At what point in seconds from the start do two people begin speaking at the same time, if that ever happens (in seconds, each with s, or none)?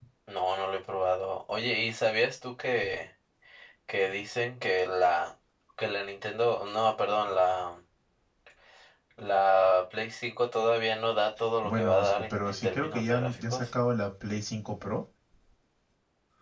11.6 s